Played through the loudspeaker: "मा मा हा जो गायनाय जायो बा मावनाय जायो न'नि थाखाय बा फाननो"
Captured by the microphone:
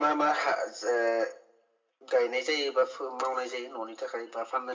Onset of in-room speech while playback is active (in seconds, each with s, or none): none